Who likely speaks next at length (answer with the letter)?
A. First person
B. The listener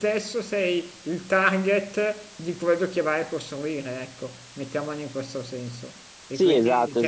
B